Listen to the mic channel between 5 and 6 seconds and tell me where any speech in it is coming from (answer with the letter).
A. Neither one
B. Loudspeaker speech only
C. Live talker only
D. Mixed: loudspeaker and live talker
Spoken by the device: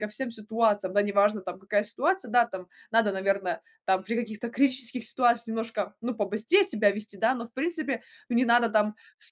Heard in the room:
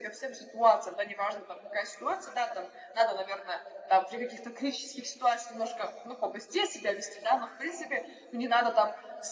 B